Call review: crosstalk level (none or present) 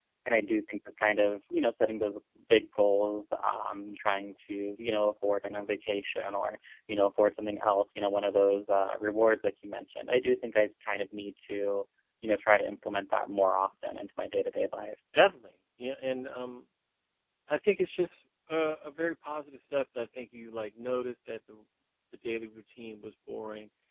none